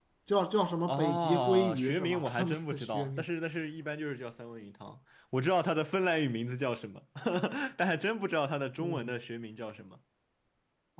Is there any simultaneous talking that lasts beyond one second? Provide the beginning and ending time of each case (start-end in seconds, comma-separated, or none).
0.9-3.2